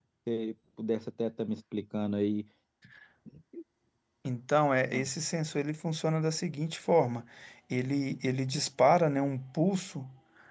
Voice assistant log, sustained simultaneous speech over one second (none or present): none